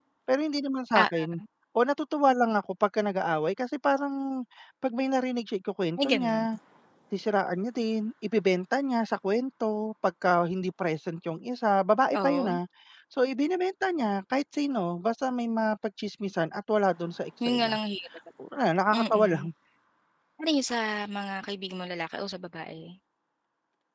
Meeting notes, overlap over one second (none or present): none